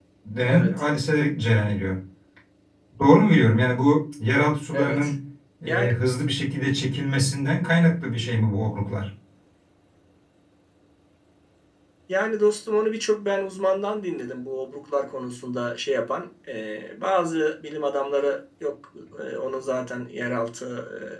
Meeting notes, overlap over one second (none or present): none